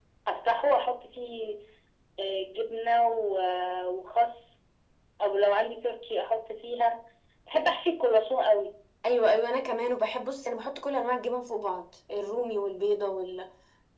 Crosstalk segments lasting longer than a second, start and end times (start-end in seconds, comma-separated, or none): none